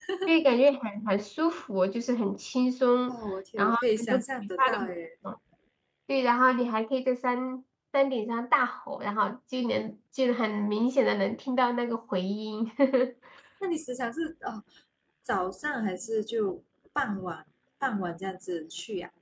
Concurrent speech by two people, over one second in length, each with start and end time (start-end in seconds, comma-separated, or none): 3.6-4.9